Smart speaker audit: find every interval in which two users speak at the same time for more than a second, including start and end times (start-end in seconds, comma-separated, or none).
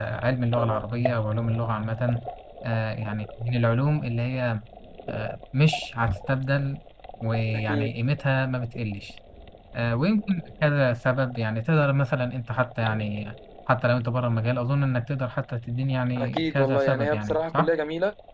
16.1-17.7